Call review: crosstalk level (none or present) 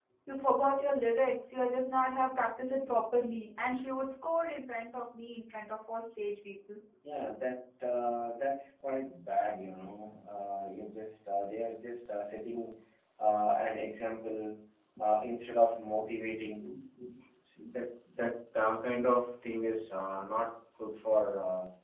none